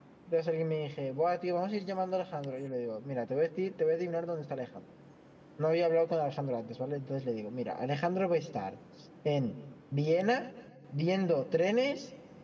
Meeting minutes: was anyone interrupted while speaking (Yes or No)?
No